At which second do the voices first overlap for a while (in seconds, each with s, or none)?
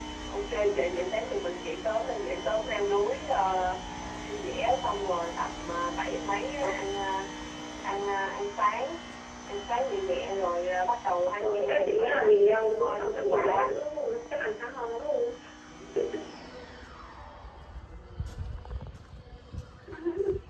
11.4 s